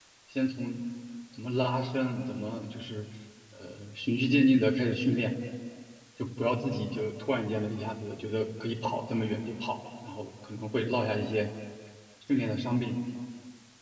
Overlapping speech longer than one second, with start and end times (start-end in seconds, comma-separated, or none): none